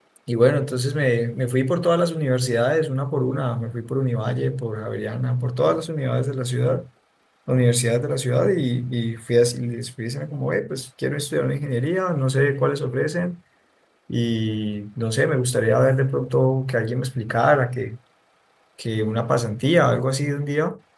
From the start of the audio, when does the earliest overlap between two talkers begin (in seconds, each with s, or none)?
none